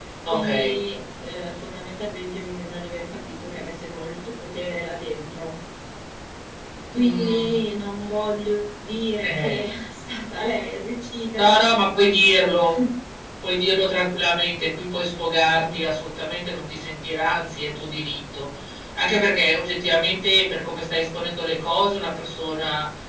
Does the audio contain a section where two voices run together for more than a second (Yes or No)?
No